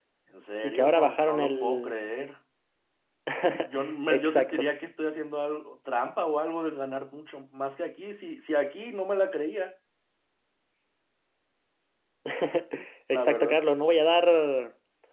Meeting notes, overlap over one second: present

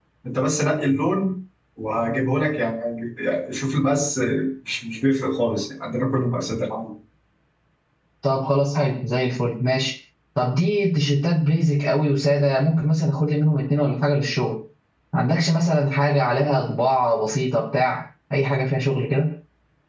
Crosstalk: none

